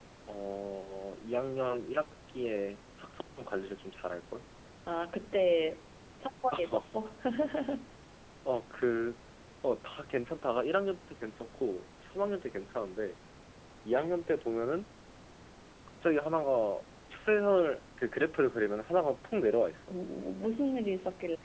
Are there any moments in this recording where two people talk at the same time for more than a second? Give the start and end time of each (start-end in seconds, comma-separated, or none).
none